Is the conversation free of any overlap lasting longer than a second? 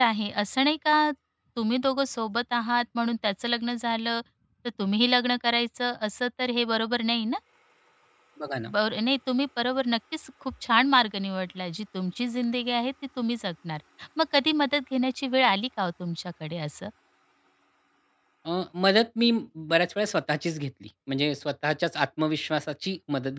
Yes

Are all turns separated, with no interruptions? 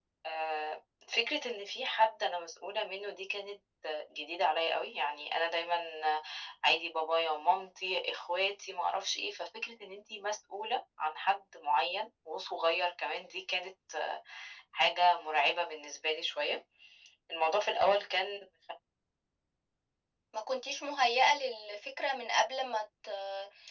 Yes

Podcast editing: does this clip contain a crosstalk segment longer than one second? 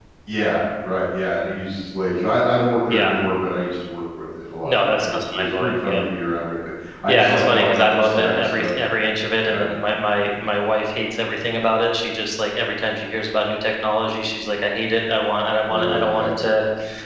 Yes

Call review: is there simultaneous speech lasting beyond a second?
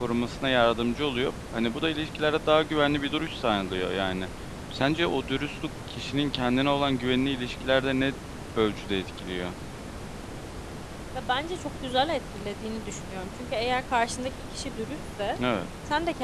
No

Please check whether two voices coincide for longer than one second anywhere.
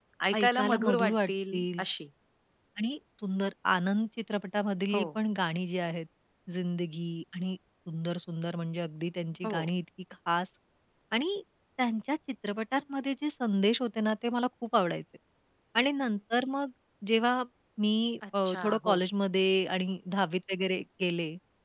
Yes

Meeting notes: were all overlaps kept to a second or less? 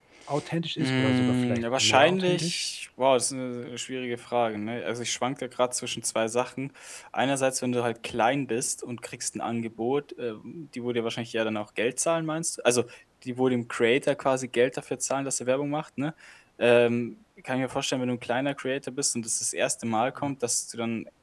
No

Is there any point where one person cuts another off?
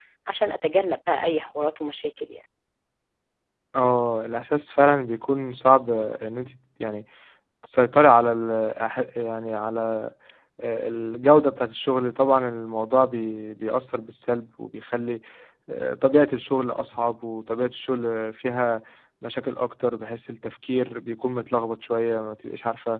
No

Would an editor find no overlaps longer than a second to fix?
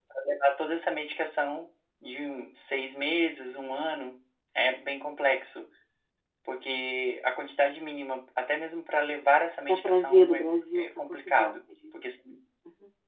No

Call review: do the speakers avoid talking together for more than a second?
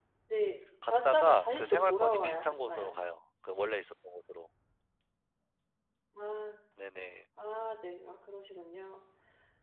No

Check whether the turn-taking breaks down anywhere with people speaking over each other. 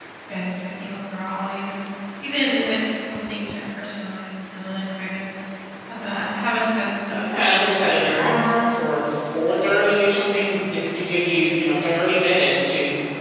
Yes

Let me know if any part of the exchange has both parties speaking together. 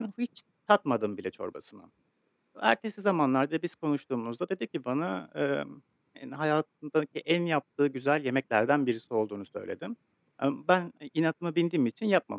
No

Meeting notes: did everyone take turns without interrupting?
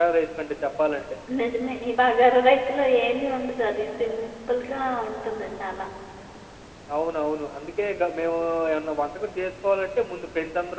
Yes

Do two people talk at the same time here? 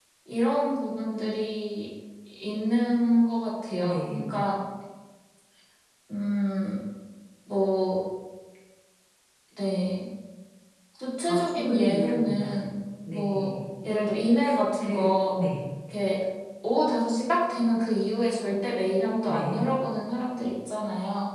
Yes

